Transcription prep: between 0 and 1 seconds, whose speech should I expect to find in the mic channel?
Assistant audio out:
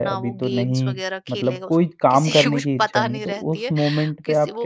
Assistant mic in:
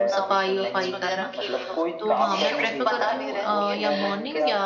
both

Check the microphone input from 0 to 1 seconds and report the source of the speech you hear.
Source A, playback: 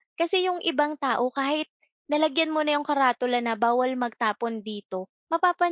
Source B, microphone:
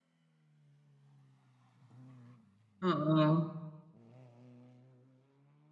neither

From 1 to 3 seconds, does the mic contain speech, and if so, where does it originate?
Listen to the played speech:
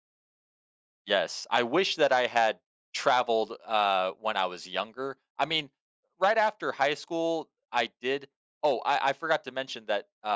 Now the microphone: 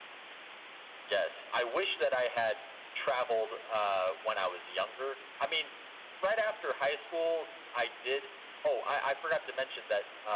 echo only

